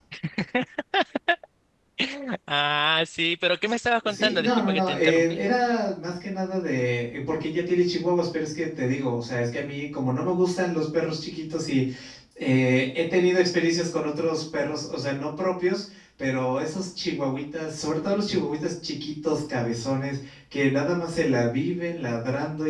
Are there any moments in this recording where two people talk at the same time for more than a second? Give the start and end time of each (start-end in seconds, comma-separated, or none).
4.0-5.4